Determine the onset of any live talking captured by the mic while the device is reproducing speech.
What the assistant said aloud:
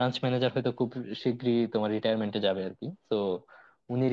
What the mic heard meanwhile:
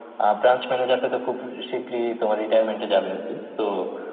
none

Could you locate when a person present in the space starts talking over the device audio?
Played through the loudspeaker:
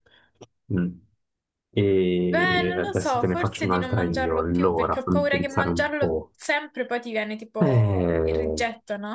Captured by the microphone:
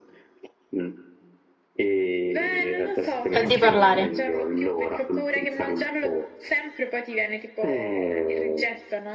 3.3 s

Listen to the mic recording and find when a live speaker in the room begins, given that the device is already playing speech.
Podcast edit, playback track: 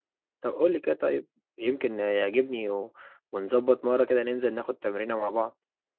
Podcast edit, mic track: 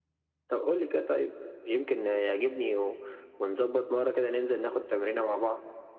none

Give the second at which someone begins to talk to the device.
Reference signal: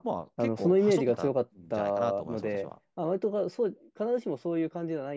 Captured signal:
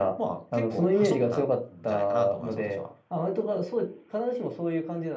none

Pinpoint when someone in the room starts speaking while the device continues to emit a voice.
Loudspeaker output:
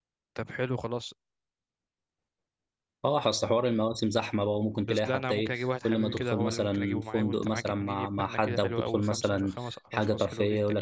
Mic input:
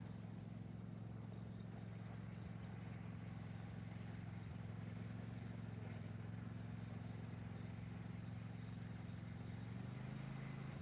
none

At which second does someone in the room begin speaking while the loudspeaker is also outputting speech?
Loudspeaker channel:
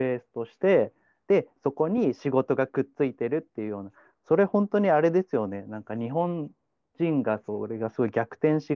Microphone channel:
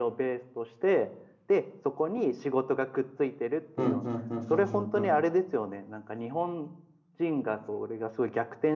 3.8 s

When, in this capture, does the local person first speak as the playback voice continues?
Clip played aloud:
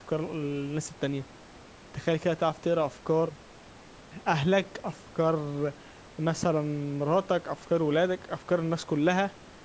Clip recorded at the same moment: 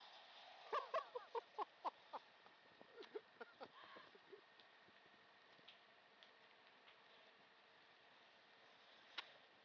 none

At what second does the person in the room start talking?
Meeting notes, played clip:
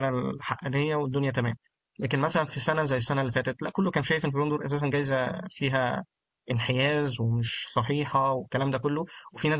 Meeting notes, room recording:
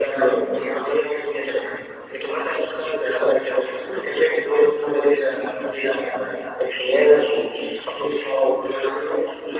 none

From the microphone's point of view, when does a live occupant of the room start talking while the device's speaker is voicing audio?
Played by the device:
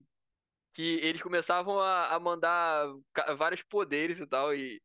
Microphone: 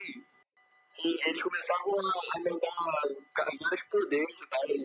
none

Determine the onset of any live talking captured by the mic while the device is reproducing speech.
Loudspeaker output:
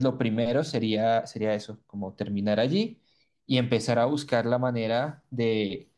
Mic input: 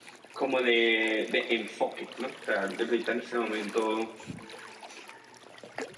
0.3 s

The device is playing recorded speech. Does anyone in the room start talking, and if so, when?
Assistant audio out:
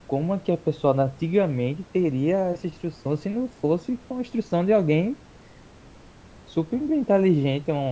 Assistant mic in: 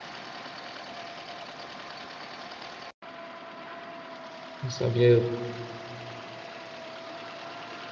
4.6 s

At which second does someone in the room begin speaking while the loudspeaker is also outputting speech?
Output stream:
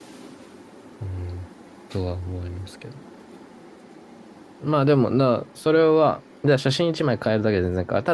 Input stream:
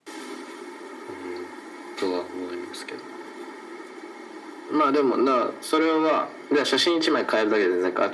none

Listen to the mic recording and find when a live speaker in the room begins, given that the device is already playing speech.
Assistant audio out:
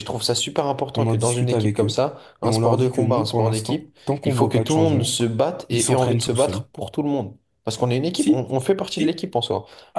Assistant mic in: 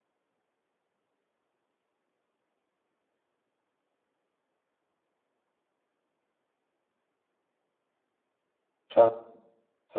8.9 s

